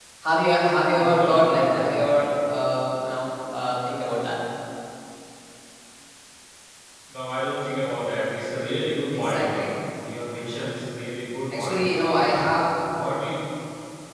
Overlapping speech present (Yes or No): Yes